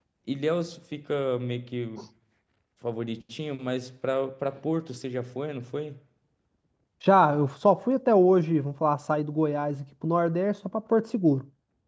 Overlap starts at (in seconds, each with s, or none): none